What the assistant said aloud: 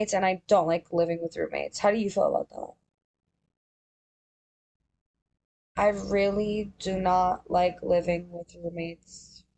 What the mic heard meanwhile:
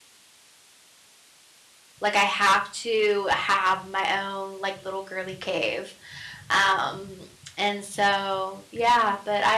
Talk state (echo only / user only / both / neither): user only